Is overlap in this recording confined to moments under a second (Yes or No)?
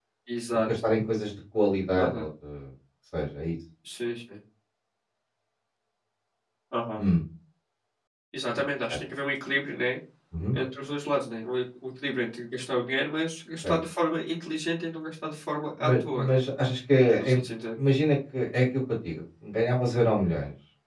Yes